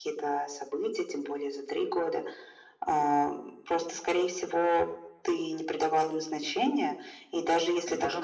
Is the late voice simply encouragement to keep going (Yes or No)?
Yes